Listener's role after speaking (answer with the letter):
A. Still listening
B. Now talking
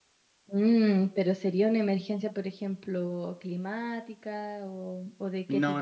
B